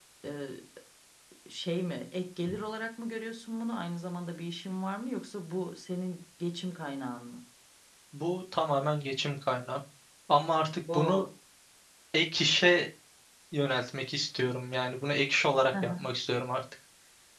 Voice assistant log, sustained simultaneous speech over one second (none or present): none